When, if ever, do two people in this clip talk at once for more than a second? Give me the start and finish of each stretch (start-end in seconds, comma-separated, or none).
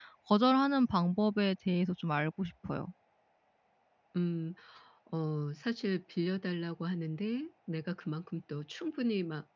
none